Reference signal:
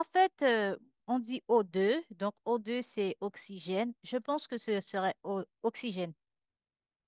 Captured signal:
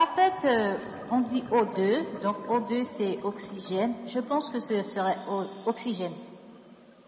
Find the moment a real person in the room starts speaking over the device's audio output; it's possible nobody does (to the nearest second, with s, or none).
none